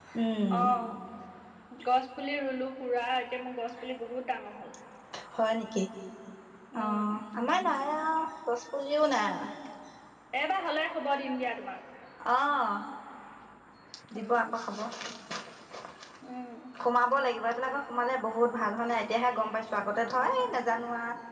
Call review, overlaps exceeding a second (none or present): none